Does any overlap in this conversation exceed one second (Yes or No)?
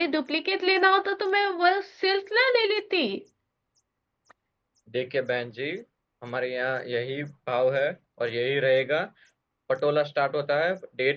No